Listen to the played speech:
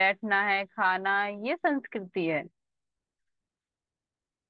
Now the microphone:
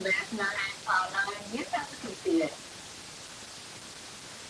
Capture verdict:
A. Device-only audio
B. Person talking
A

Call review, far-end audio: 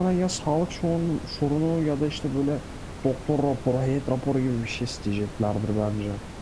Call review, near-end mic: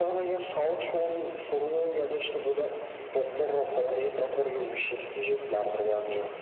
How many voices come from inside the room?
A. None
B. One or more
A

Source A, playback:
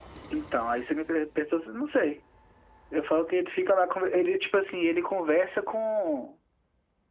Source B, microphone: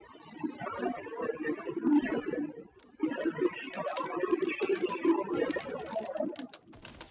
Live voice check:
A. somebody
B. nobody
B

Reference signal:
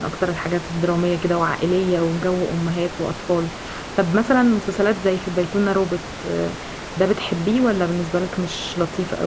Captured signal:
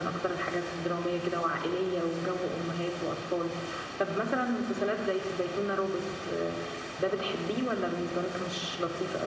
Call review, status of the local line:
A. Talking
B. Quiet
B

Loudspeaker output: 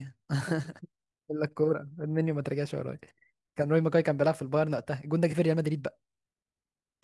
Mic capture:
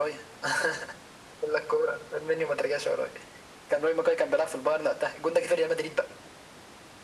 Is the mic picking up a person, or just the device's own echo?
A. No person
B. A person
A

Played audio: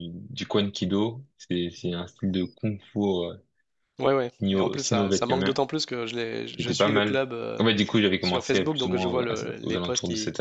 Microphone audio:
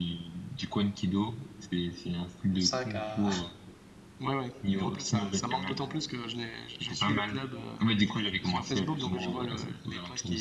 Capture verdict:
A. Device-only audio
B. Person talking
B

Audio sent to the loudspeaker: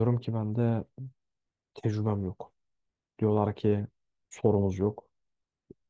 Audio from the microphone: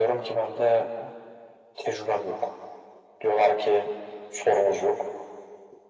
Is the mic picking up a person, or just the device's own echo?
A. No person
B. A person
A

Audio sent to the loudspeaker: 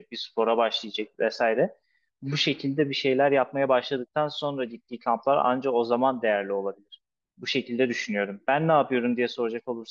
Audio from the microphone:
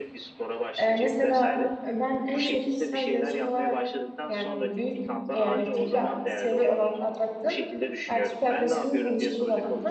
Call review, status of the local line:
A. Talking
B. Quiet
A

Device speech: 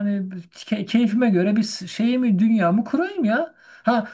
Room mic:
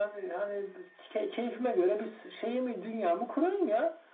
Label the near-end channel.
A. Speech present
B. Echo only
B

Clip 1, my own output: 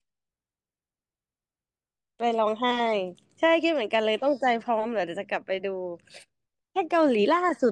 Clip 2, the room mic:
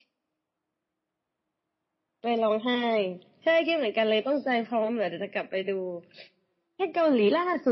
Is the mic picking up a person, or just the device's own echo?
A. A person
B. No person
B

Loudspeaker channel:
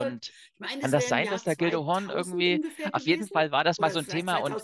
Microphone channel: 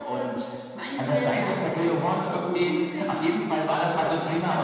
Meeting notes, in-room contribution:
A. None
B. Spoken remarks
A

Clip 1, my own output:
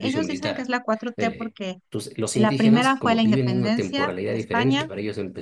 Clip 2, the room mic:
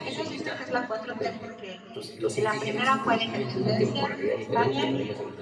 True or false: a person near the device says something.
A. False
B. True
A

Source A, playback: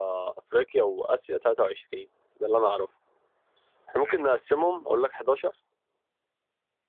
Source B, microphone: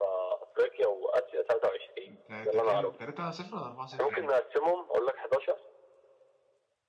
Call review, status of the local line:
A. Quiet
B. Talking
B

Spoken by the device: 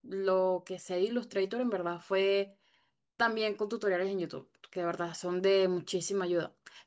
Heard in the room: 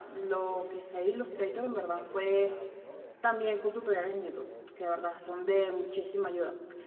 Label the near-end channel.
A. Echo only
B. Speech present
B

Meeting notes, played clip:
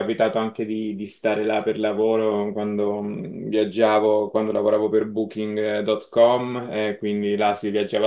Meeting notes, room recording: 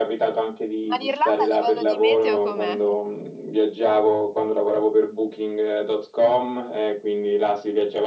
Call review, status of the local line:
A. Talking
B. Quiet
A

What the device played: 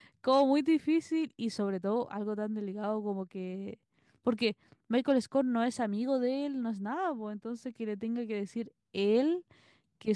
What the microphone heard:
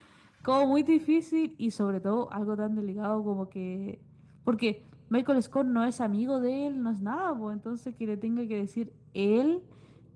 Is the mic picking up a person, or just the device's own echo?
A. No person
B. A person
A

